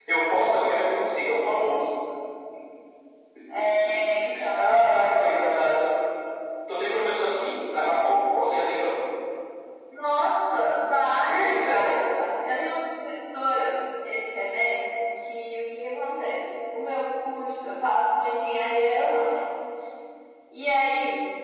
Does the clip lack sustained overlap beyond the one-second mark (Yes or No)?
Yes